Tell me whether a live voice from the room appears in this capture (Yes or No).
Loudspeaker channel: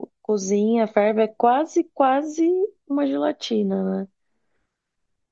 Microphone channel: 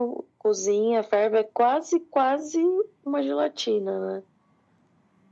No